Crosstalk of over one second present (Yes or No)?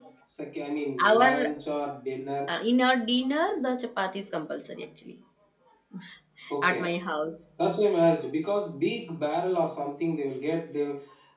No